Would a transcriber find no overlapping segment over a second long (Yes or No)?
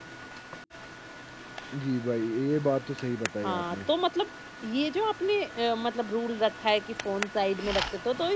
Yes